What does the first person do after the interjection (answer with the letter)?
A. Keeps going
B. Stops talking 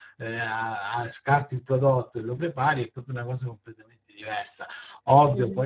A